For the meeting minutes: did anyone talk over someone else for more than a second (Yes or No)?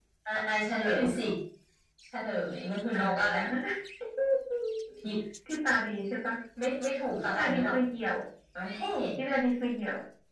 No